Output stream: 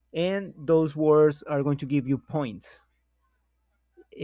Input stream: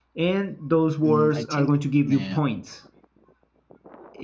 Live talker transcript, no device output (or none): Mm, I think uh,